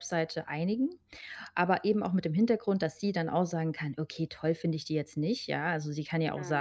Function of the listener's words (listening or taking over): listening